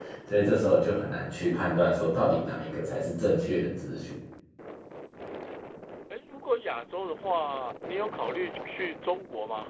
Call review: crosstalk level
none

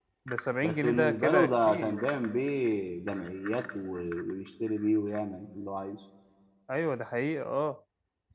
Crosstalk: present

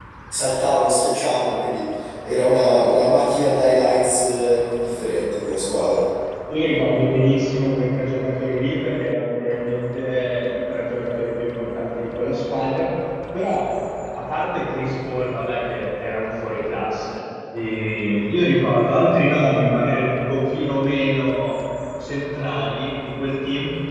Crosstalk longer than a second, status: none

